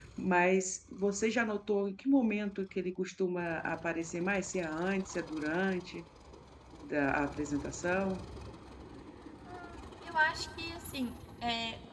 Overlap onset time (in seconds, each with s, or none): none